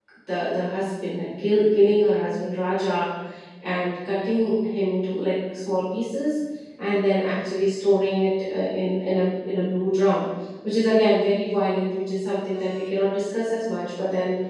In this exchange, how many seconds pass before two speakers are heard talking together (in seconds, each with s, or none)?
none